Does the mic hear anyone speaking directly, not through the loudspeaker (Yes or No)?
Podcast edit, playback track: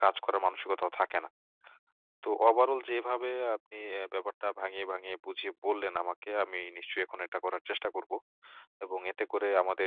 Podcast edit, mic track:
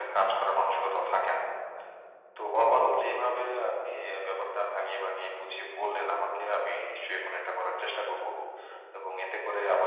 No